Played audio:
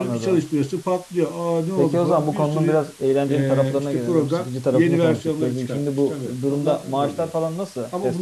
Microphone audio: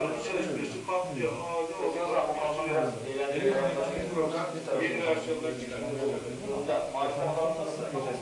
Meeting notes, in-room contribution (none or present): present